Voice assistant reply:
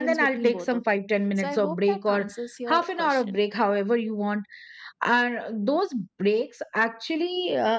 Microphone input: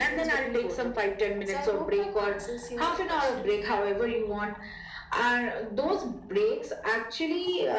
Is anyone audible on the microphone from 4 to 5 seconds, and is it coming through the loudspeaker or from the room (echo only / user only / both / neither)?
echo only